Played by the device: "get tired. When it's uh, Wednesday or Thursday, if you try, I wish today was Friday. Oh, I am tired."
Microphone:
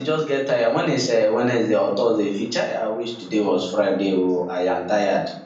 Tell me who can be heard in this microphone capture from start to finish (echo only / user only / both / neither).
echo only